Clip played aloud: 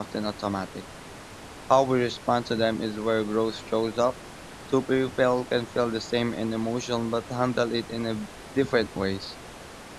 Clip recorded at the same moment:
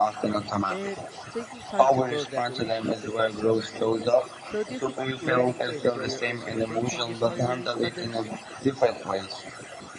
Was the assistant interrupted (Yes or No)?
Yes